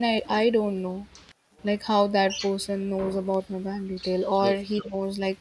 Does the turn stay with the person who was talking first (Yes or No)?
Yes